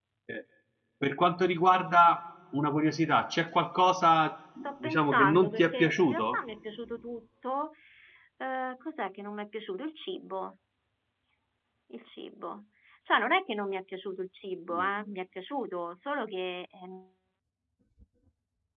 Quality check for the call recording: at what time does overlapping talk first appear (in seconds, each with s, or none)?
4.6 s